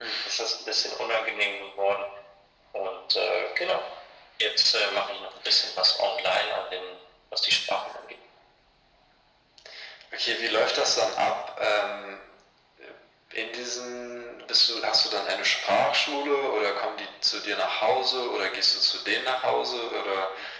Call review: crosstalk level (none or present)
none